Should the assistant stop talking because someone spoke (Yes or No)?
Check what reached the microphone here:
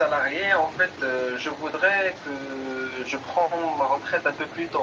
No